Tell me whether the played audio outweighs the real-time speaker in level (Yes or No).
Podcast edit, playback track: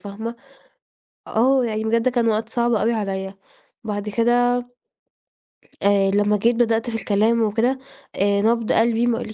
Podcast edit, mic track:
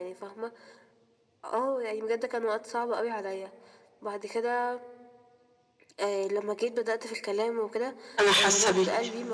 No